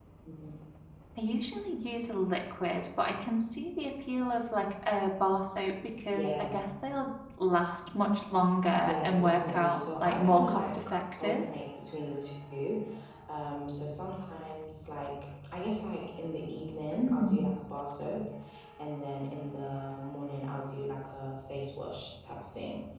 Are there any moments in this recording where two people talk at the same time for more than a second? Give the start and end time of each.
8.8-10.8

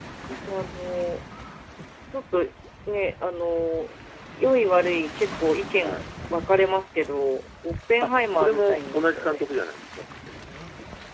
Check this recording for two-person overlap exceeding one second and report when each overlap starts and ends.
8.0-9.4

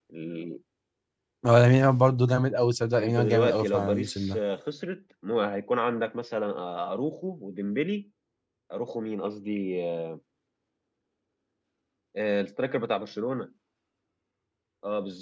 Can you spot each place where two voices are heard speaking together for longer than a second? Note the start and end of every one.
3.0-4.4

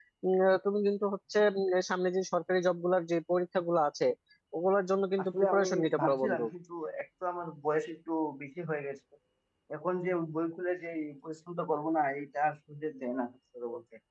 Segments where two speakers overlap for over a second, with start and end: 5.2-6.4

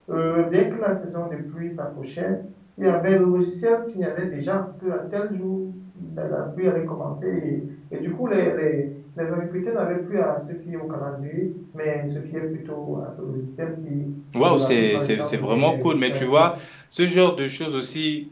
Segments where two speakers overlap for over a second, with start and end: 14.4-16.5

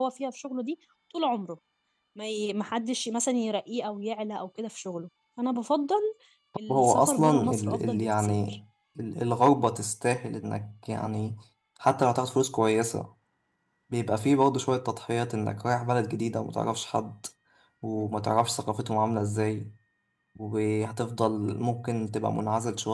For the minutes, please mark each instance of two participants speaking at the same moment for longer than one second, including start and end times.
6.7-8.4

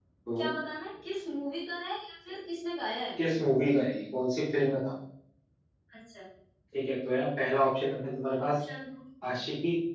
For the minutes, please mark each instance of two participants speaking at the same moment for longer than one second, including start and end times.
none

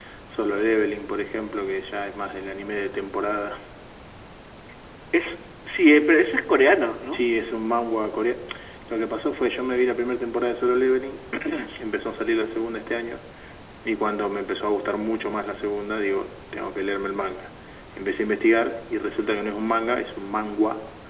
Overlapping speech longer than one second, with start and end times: none

